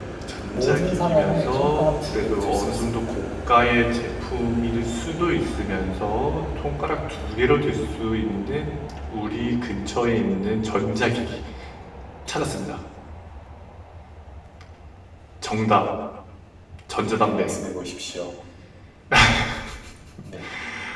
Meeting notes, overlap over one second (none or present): present